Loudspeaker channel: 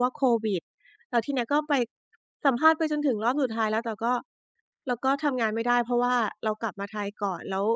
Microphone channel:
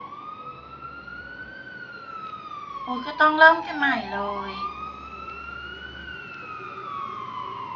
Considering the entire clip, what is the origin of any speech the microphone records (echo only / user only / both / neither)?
user only